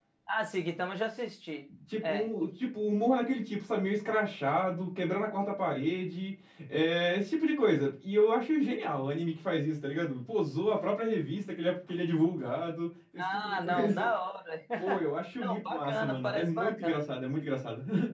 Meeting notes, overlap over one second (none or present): present